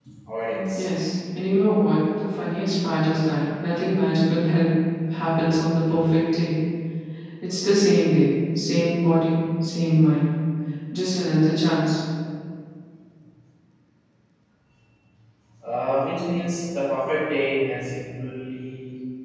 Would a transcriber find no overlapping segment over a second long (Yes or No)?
Yes